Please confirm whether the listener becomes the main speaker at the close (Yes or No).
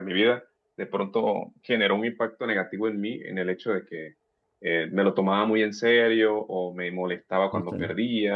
No